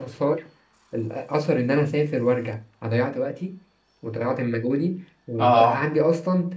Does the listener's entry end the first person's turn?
No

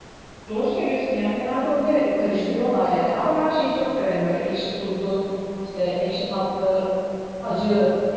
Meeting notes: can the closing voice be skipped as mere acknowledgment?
Yes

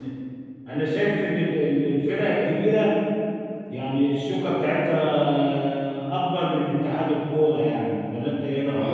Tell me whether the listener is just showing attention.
No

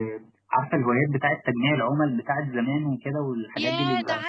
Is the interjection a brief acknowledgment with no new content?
No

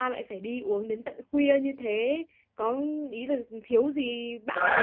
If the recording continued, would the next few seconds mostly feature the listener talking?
Yes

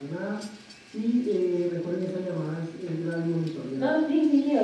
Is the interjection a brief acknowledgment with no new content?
No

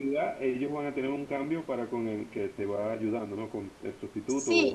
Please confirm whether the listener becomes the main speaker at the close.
Yes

